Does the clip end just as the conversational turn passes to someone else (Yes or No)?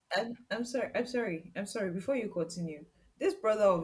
No